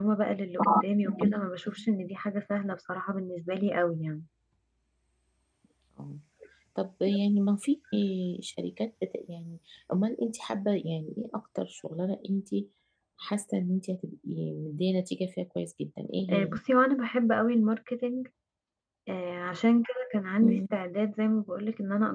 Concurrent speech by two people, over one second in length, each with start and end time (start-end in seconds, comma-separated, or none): none